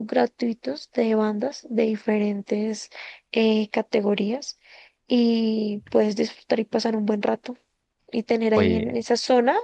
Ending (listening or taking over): listening